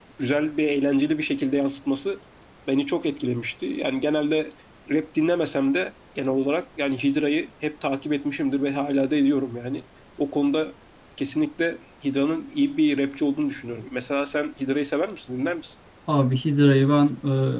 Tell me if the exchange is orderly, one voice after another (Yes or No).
Yes